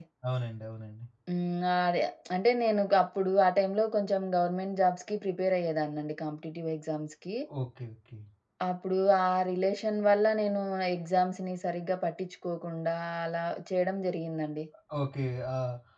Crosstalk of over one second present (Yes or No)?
No